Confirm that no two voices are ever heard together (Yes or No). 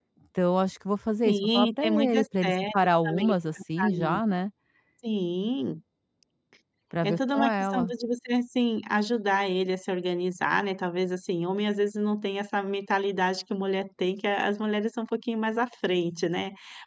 No